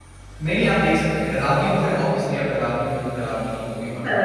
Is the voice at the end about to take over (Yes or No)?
No